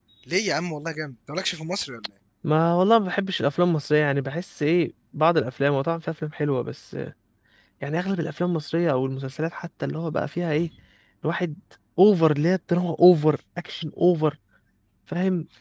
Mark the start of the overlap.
none

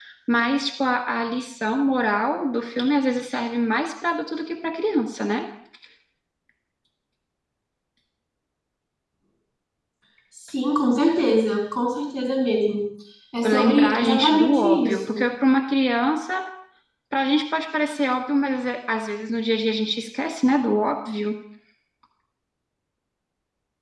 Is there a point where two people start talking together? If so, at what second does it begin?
13.4 s

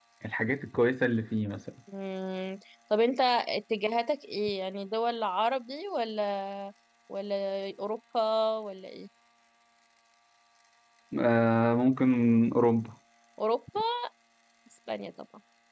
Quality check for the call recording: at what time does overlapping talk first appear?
none

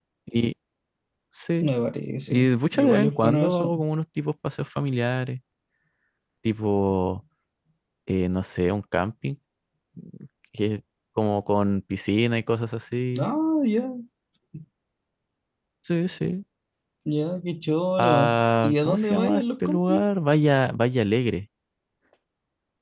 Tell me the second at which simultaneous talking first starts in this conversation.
2.3 s

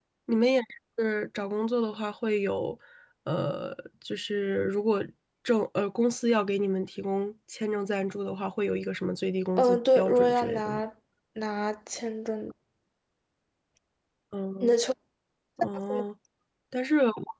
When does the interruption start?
9.6 s

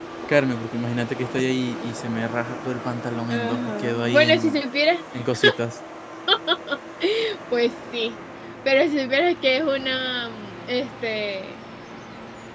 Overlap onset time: 3.3 s

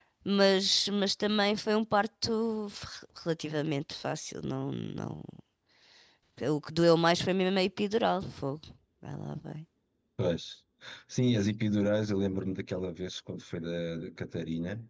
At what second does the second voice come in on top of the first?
none

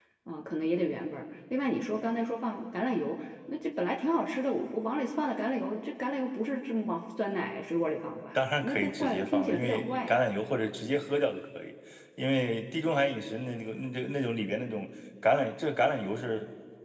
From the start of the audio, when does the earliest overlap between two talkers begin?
8.3 s

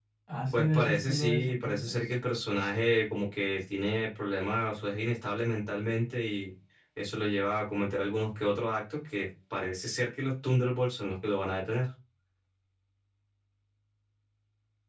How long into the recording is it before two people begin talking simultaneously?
0.5 s

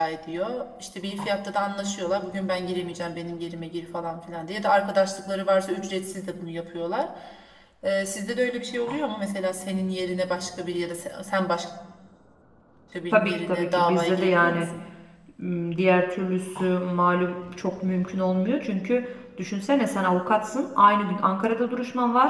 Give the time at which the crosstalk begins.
13.1 s

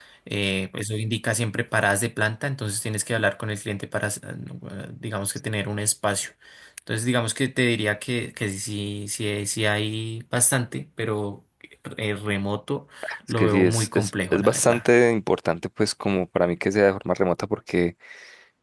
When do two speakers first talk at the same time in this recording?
13.3 s

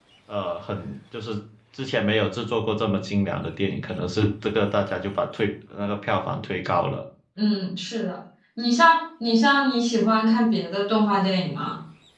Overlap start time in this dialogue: none

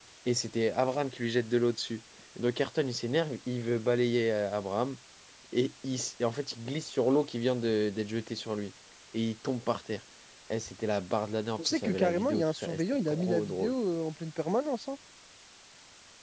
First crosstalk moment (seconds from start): 11.6 s

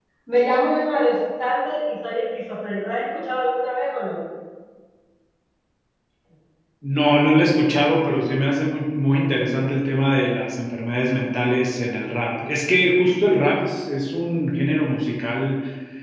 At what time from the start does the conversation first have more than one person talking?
none

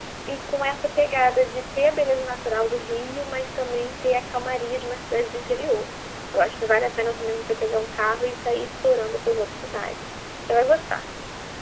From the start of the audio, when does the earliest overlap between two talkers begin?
none

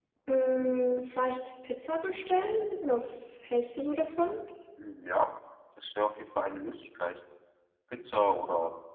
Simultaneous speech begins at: none

